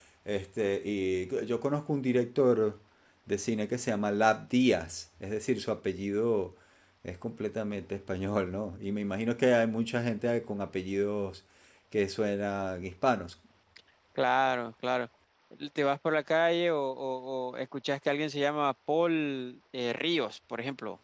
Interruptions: none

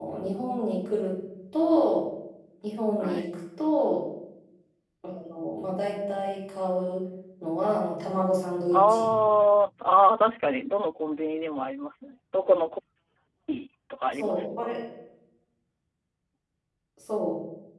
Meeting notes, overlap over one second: none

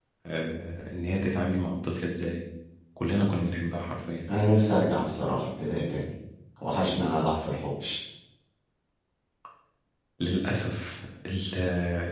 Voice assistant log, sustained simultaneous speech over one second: none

